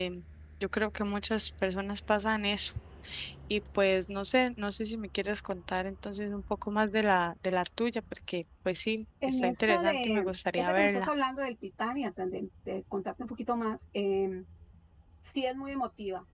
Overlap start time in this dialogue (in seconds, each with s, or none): 9.2 s